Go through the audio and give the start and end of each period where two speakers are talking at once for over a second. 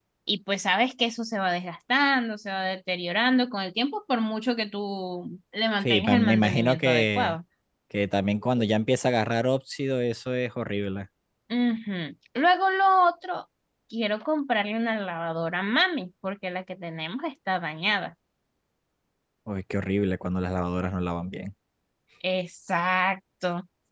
5.8-7.4

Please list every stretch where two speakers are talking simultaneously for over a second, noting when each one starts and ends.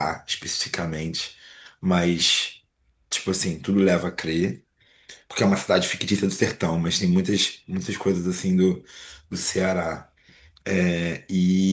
none

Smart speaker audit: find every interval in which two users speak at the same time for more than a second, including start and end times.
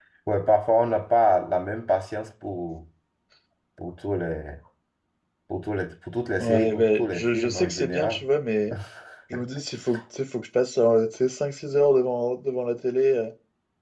6.4-8.2

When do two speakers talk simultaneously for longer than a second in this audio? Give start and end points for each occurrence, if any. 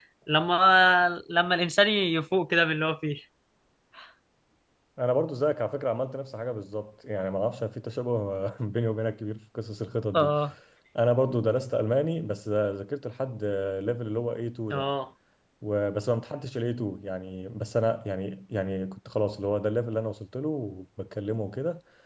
none

